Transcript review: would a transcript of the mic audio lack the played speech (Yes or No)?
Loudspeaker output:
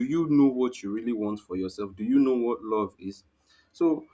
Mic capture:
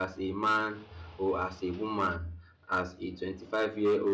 Yes